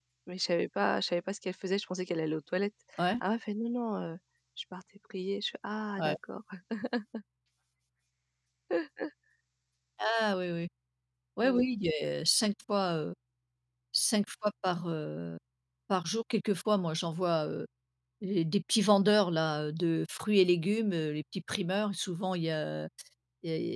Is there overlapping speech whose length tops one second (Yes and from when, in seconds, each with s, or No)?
No